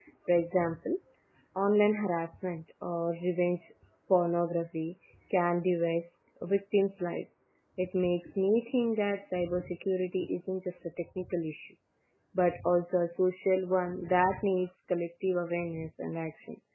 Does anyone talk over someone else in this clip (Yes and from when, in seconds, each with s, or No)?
No